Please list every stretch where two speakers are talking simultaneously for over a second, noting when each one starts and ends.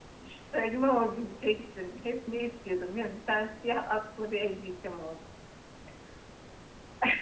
none

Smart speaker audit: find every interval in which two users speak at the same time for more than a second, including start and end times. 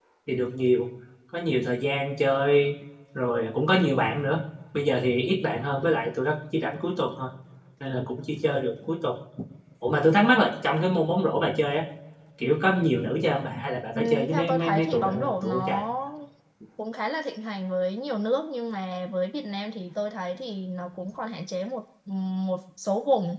13.9-15.8

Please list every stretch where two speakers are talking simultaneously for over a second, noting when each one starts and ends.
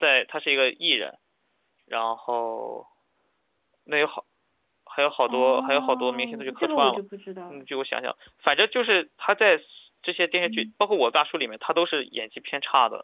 5.3-7.0

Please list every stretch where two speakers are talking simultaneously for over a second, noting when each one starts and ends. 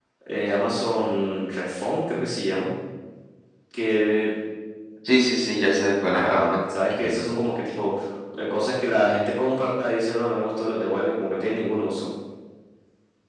6.1-7.4

